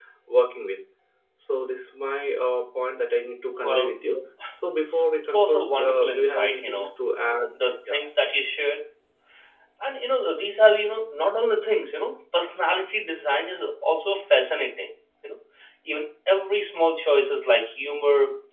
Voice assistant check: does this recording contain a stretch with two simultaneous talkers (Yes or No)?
Yes